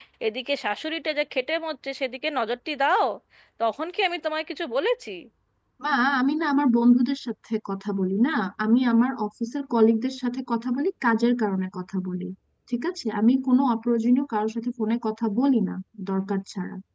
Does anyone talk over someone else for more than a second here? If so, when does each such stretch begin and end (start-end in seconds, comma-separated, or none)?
none